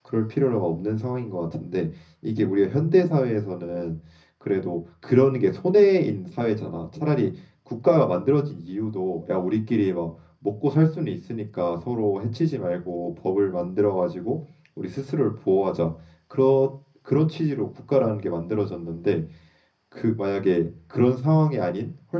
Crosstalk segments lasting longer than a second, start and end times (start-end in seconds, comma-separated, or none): none